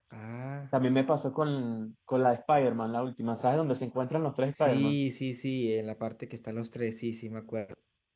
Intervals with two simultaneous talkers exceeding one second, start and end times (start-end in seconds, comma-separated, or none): none